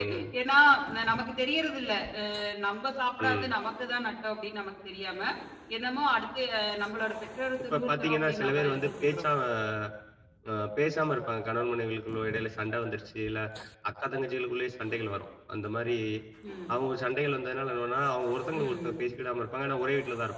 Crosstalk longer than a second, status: present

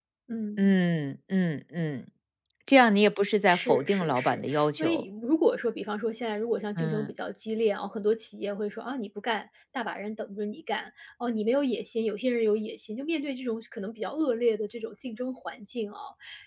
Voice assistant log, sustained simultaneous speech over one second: present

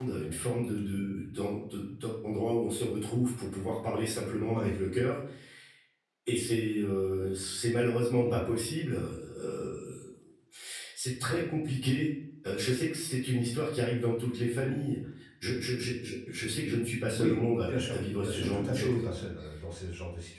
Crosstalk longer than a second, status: present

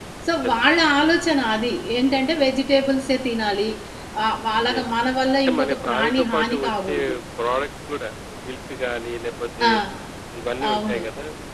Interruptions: present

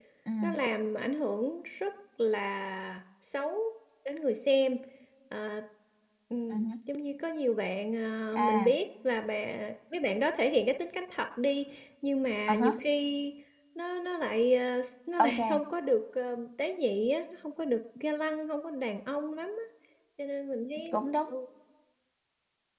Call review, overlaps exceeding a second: none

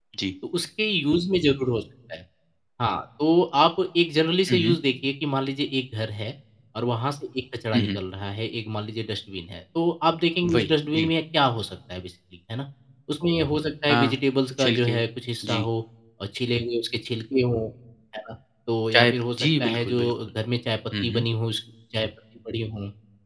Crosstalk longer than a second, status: present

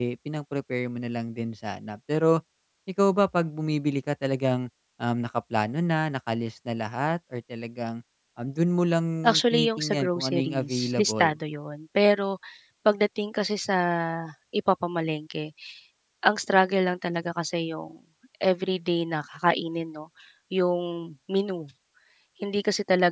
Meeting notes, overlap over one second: present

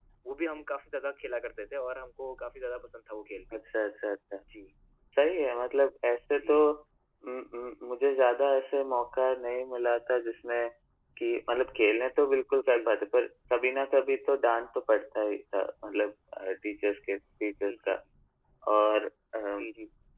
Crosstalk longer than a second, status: none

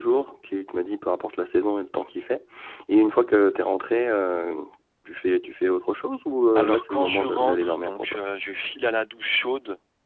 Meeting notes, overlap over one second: present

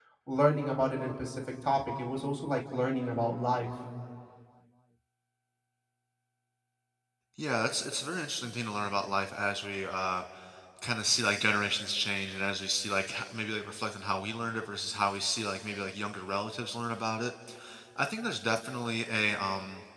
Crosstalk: none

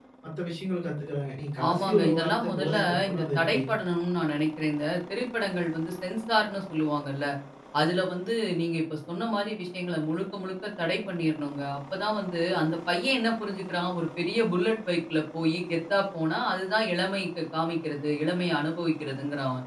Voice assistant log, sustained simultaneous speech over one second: present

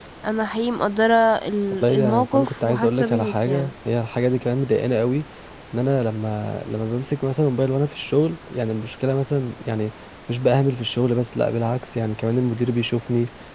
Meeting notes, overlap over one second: present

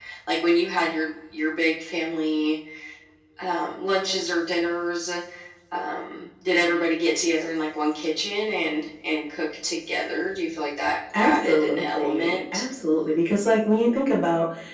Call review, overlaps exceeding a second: present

